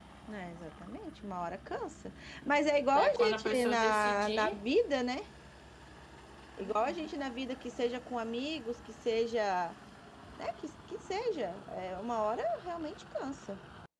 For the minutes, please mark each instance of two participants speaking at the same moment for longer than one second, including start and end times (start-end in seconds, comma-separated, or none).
3.0-4.6